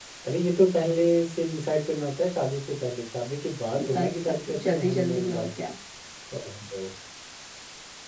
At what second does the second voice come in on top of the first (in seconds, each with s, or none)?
3.7 s